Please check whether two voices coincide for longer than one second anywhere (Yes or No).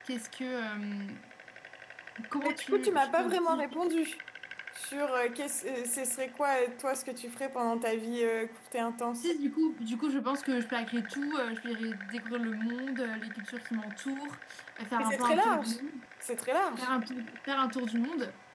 Yes